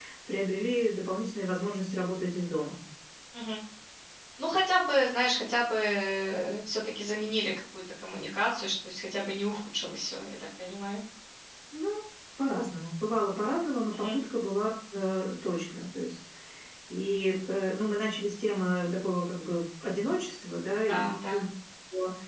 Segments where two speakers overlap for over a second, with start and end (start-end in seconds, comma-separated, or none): none